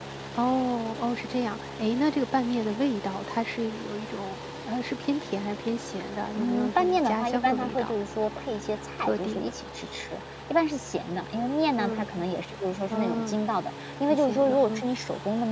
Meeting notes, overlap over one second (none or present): present